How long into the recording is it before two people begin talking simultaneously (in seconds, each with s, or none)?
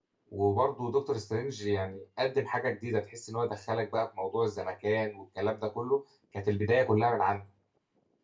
none